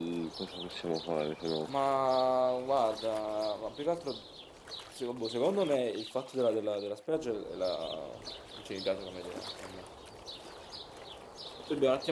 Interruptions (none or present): none